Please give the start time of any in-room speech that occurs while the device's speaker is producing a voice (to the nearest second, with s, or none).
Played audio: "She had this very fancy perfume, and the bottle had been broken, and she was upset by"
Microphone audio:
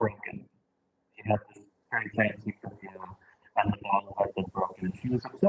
none